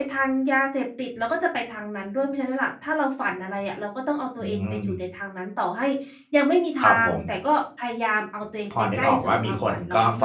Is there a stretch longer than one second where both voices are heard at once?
Yes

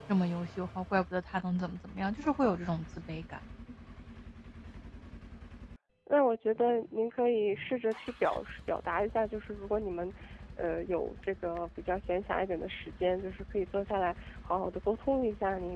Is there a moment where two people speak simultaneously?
No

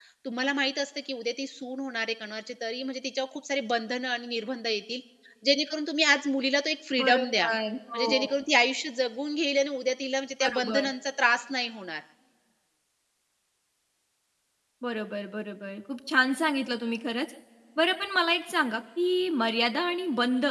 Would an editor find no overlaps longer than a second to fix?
Yes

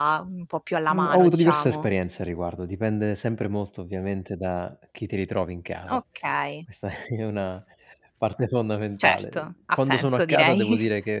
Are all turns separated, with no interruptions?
No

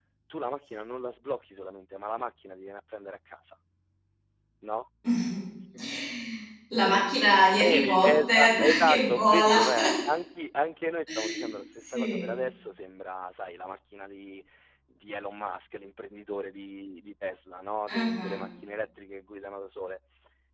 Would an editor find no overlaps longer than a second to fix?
No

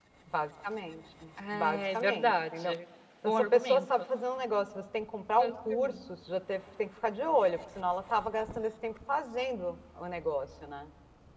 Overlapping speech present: Yes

